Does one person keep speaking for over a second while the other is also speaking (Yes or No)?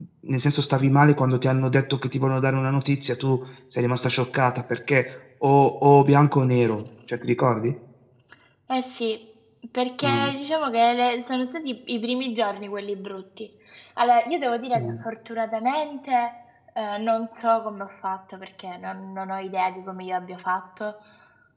No